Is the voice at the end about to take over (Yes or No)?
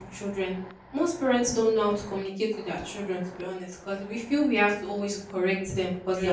No